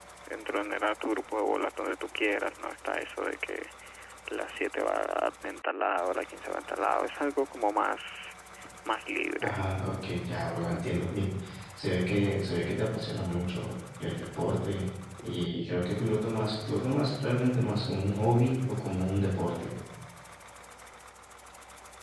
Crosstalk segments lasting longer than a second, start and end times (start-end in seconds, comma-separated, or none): none